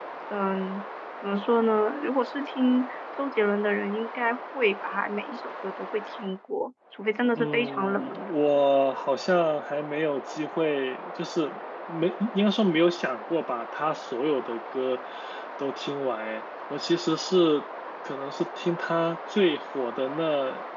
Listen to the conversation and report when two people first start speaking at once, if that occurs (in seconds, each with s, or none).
7.4 s